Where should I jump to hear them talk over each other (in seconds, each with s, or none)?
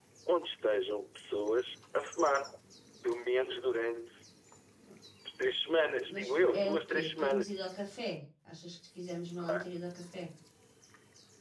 6.1 s